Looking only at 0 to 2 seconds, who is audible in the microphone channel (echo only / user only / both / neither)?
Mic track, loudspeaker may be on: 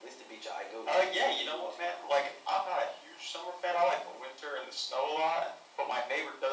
echo only